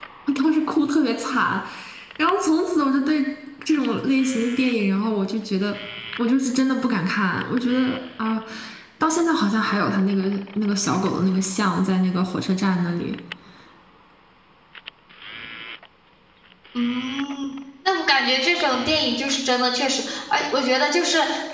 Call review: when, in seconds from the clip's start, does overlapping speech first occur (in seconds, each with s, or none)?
none